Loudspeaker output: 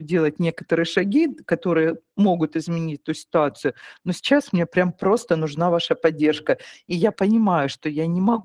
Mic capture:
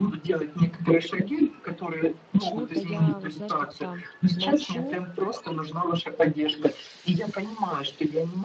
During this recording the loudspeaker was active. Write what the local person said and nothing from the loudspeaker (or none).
почему-то я вот, знаешь, как-то молчу,